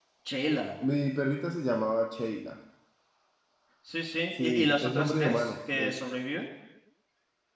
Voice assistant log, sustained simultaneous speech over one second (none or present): present